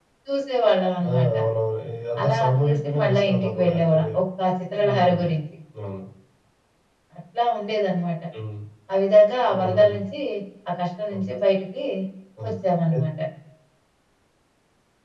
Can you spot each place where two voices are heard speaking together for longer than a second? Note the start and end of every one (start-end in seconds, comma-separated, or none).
2.2-4.0